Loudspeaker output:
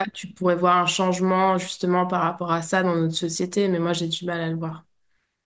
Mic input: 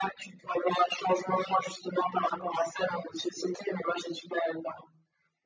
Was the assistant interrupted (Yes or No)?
No